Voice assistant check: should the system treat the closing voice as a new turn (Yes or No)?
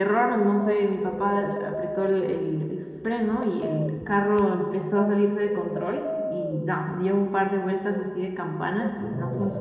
No